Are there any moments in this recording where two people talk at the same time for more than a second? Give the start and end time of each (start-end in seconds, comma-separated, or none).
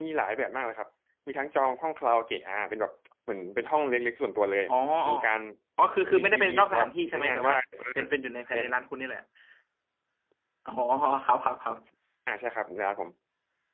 6.2-7.5